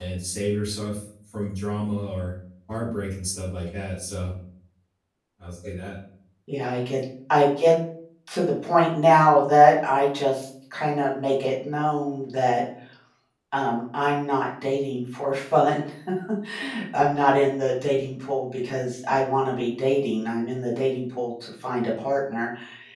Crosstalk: none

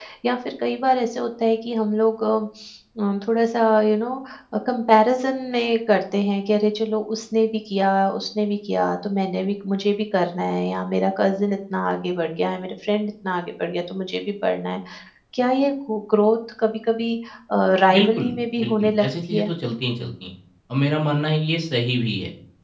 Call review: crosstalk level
present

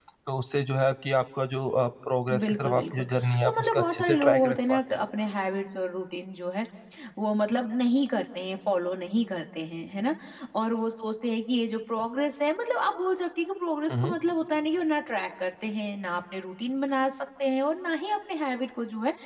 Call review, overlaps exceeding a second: present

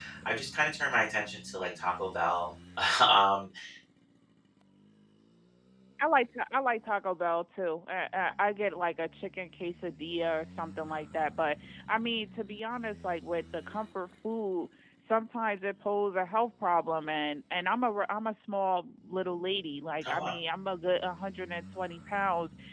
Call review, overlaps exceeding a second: none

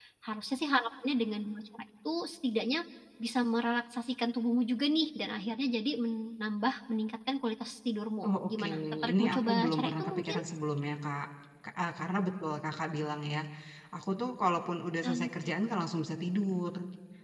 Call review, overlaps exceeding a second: present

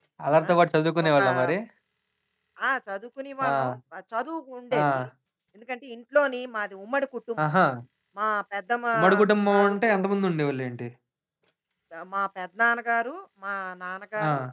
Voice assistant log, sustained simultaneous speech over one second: none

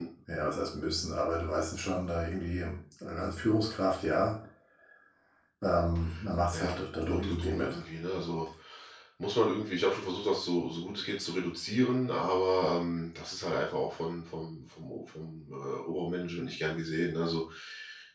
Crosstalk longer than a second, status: present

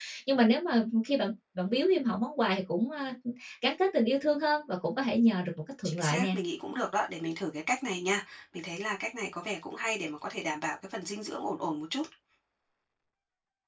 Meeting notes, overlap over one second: none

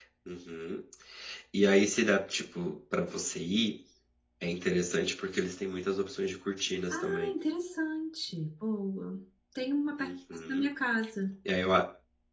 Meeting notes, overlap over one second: none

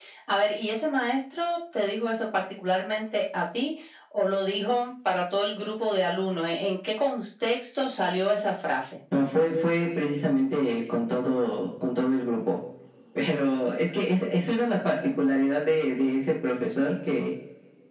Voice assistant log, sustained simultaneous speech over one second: none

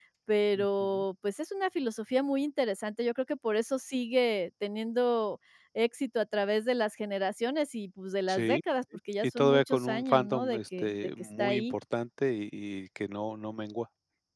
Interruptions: present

